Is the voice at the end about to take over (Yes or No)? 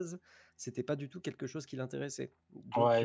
Yes